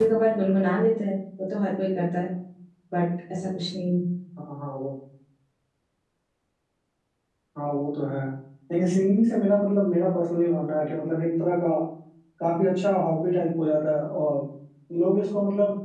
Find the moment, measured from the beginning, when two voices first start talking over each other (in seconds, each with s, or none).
none